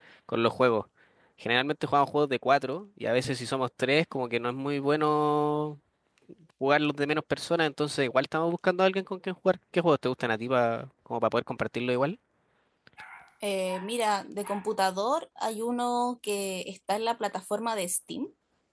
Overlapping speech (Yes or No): No